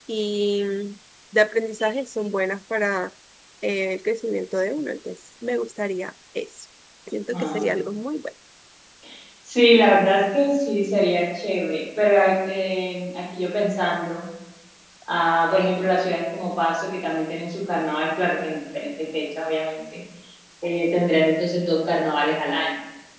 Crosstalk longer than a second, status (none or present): none